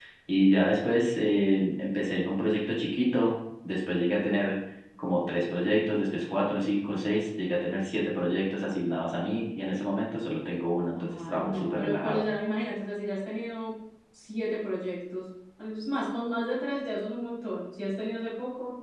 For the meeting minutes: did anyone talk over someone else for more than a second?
Yes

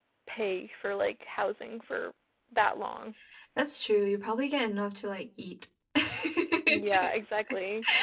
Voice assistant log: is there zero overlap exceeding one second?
Yes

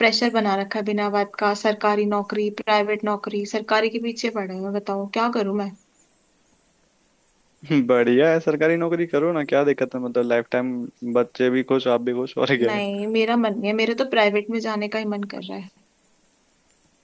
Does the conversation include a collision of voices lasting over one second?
No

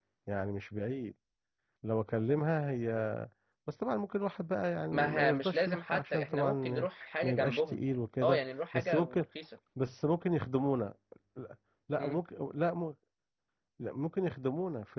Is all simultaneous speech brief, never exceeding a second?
No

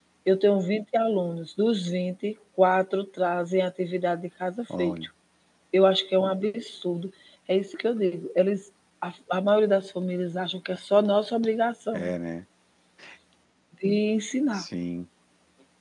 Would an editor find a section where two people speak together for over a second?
No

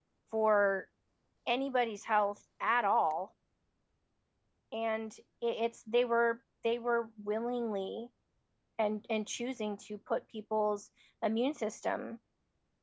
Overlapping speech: No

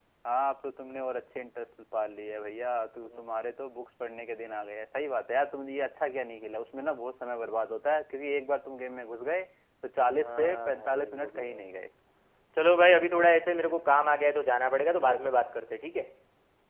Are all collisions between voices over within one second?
No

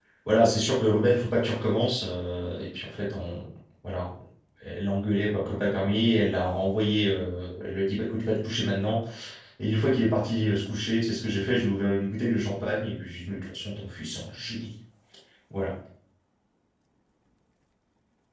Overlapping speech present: No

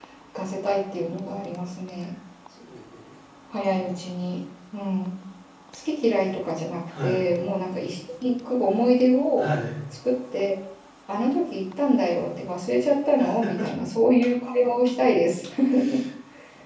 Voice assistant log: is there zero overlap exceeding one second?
Yes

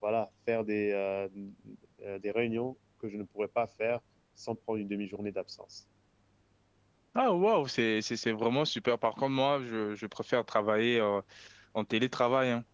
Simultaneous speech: No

